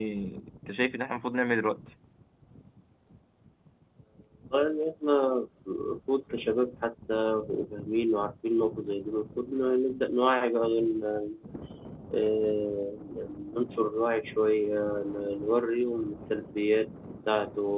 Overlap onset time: none

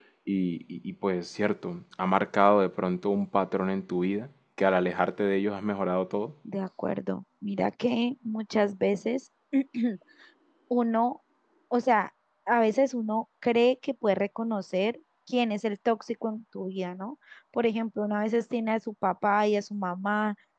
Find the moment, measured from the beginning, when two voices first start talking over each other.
none

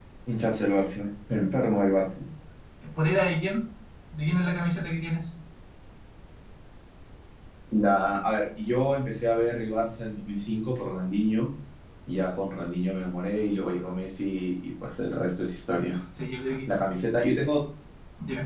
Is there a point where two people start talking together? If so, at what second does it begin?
none

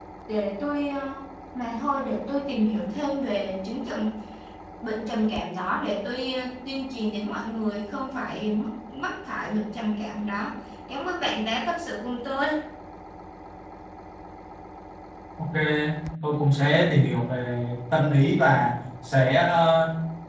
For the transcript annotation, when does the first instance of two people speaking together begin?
none

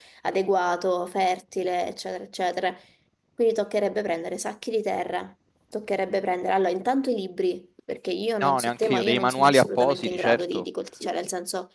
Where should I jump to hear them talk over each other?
8.4 s

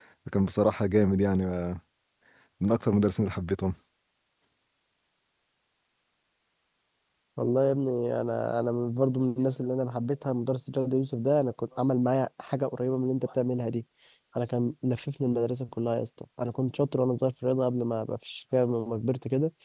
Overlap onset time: none

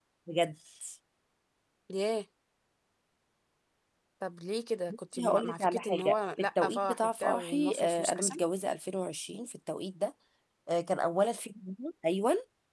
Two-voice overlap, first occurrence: 5.2 s

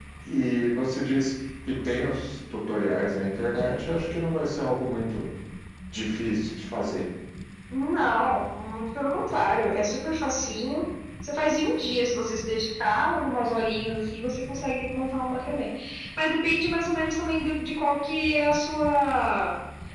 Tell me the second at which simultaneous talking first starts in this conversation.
none

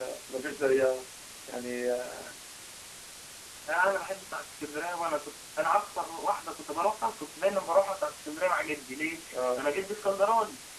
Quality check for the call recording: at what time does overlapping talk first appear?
none

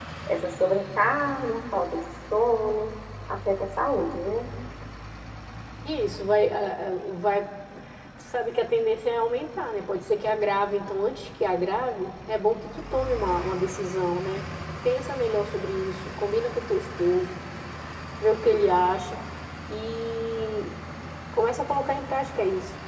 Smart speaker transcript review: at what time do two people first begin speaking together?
none

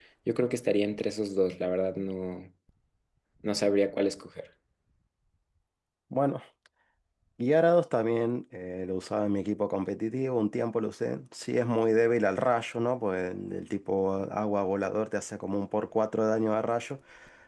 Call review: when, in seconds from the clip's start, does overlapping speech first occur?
none

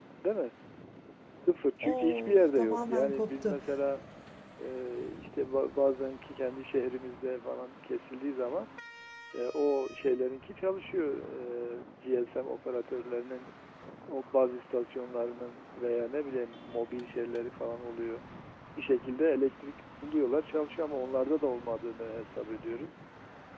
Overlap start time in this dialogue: 1.8 s

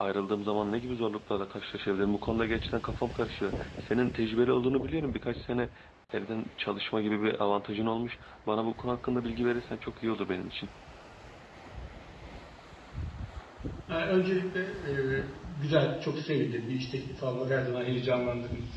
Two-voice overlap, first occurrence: none

